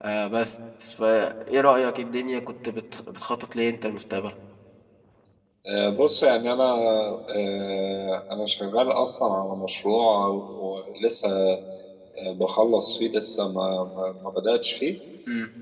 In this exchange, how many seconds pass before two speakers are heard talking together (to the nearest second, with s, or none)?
none